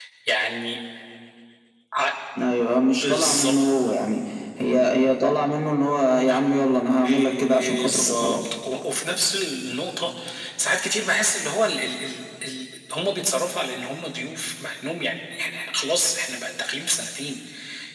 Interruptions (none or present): present